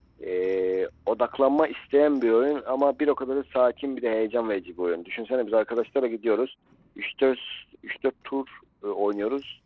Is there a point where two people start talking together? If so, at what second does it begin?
none

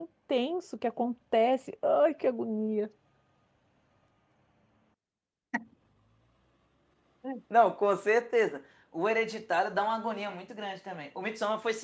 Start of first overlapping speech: none

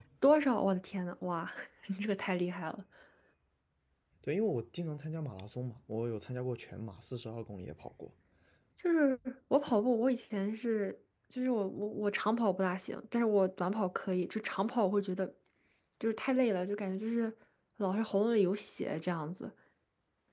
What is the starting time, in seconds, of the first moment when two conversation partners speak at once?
none

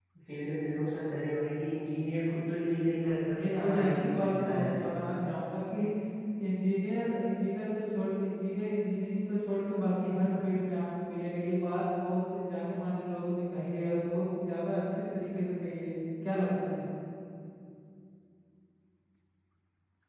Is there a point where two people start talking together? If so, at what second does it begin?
3.4 s

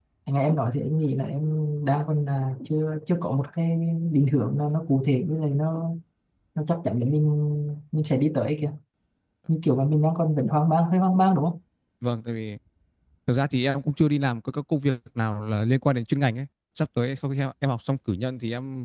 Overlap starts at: none

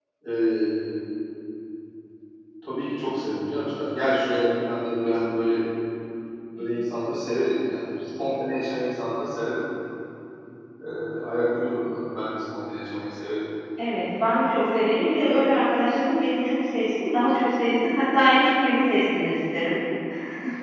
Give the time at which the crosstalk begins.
none

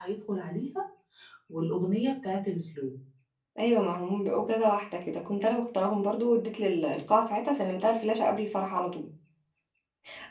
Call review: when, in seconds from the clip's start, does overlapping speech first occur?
none

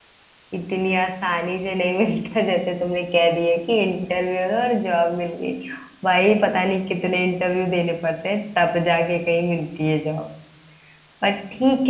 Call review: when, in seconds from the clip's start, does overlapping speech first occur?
none

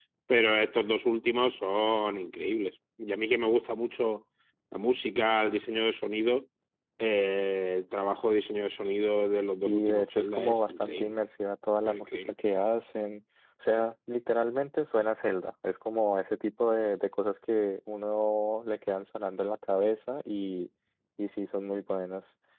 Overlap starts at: 9.7 s

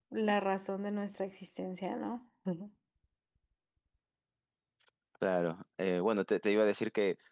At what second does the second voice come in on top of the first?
none

